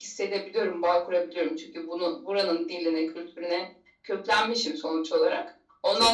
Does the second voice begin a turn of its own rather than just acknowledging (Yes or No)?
No